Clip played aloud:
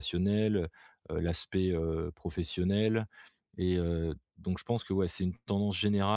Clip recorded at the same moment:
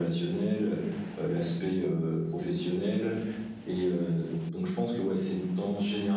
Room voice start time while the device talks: none

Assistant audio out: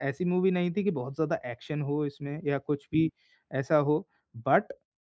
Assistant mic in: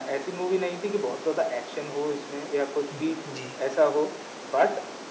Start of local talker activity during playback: 3 s

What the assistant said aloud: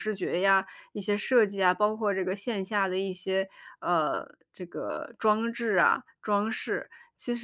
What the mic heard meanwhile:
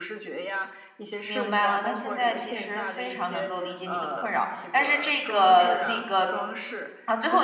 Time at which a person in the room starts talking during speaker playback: 1 s

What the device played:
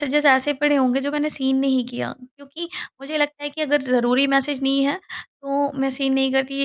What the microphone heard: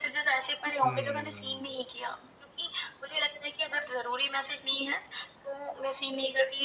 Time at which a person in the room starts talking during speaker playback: 1 s

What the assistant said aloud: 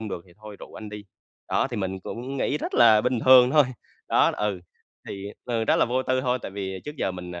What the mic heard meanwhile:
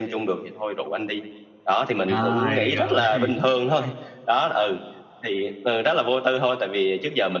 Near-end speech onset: 2 s

